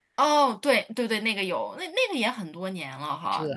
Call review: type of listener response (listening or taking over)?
taking over